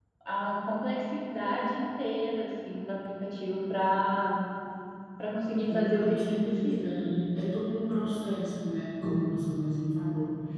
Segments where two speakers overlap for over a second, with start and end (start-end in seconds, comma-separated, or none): 5.7-7.2